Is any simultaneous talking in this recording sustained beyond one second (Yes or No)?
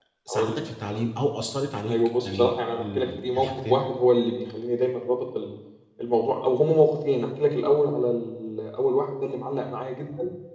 Yes